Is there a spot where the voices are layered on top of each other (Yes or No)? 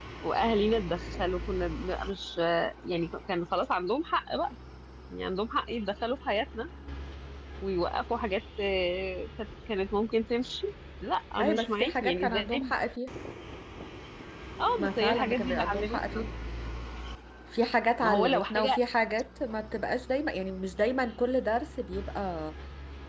Yes